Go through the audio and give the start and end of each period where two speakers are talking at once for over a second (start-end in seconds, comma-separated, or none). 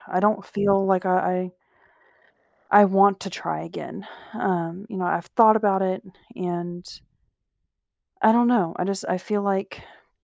none